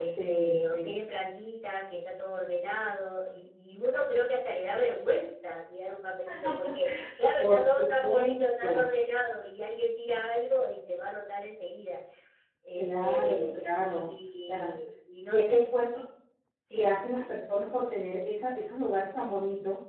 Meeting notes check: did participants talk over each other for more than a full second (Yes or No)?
Yes